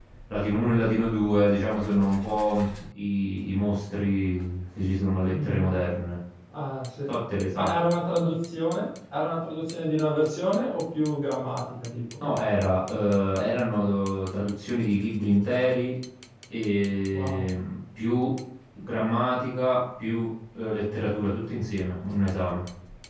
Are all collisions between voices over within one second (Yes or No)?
Yes